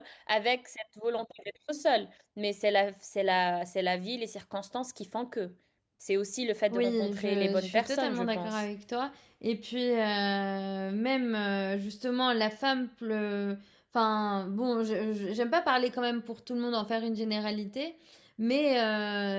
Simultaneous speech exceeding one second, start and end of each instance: 6.7-8.6

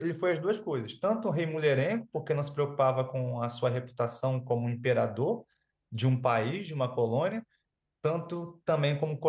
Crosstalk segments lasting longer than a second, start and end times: none

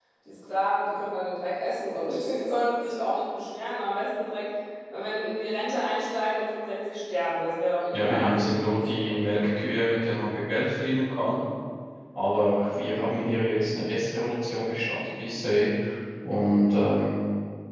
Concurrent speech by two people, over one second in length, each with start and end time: 7.9-9.5

